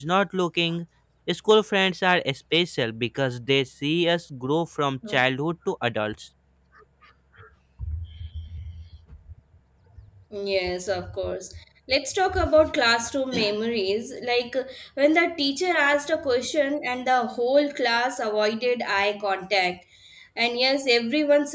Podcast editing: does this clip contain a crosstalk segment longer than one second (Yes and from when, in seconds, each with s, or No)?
No